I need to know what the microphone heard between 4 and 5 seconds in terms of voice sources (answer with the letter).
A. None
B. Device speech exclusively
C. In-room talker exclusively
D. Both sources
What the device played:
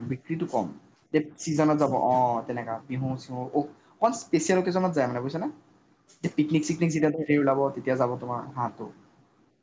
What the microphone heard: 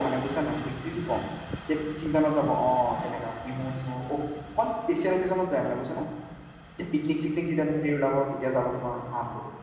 B